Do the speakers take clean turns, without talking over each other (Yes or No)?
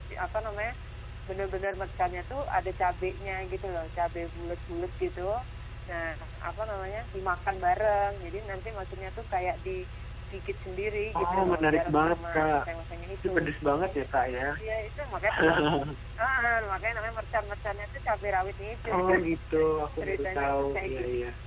No